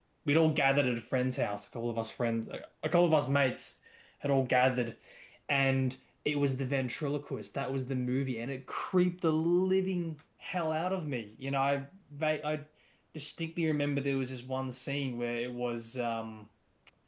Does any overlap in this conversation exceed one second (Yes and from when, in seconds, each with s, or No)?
No